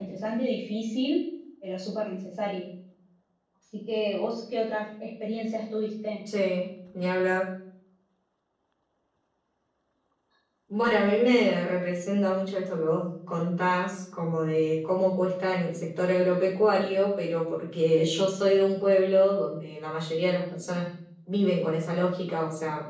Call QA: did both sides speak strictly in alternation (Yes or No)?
Yes